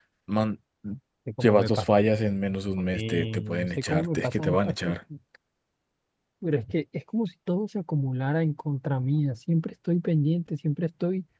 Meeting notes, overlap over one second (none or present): present